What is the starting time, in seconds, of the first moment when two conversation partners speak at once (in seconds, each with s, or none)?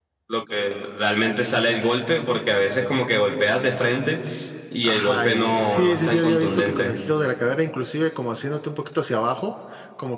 4.8 s